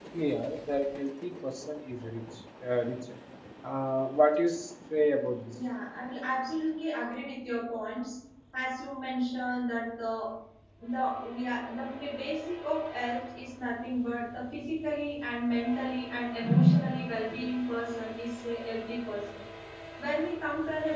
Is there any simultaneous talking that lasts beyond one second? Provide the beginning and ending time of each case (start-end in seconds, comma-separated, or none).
none